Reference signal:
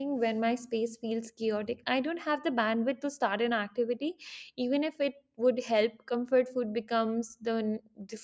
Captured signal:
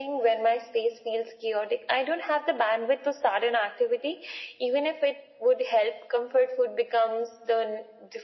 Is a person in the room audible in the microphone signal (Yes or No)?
No